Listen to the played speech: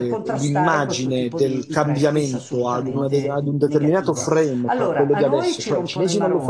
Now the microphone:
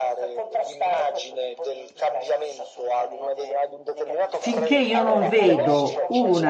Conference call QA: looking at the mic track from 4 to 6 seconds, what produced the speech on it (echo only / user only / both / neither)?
both